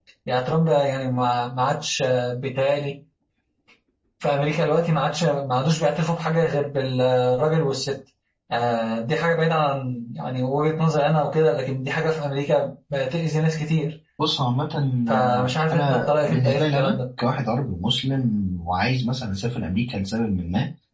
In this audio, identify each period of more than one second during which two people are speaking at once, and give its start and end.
15.1-16.9

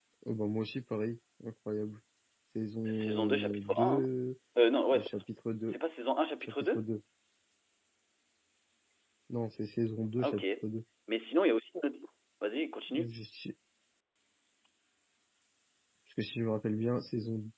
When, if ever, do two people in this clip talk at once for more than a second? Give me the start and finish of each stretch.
2.9-4.1

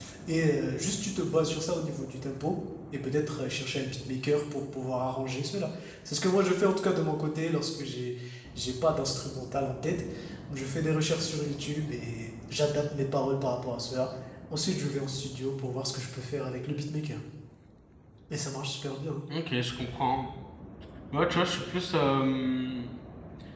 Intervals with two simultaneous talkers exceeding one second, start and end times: none

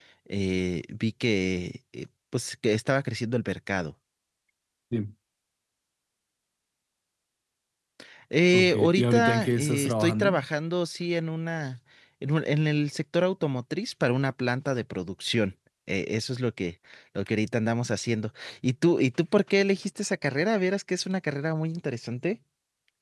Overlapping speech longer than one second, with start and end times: 8.5-10.3

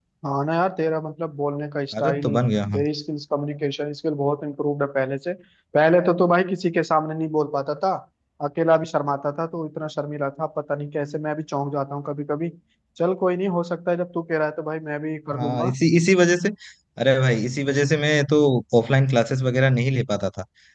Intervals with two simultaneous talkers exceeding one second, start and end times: none

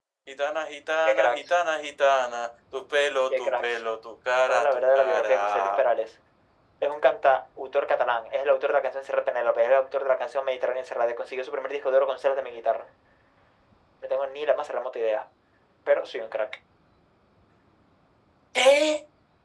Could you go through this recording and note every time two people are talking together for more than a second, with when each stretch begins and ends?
4.5-5.8

